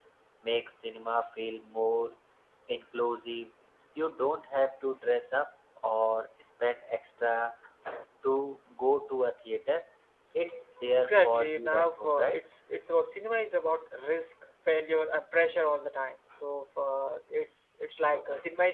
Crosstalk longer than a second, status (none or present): present